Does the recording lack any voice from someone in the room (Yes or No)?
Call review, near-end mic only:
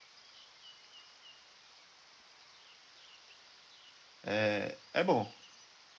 No